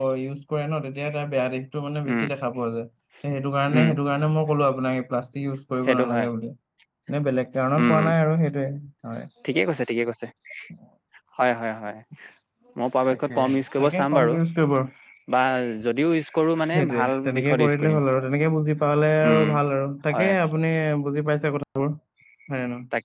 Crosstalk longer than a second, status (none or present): present